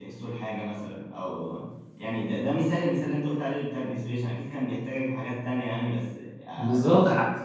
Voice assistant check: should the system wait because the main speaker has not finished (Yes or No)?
No